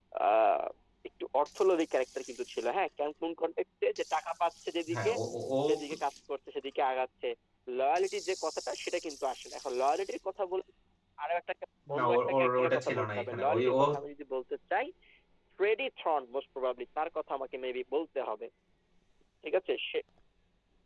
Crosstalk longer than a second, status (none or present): present